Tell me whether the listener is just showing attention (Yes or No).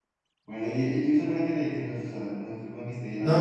No